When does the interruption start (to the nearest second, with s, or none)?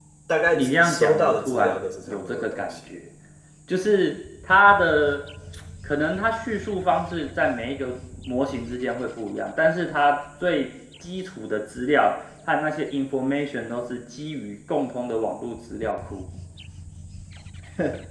1 s